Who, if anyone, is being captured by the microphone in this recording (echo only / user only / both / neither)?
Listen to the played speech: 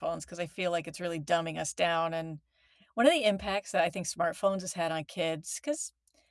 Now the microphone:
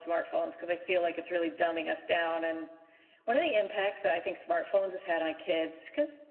echo only